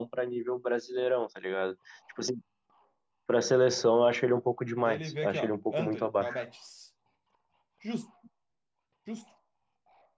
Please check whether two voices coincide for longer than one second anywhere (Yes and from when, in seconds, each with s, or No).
Yes, from 4.8 s